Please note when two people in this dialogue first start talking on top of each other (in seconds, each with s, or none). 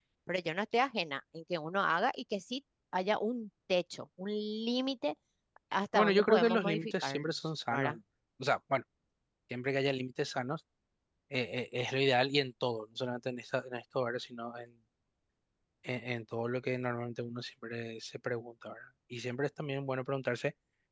6.0 s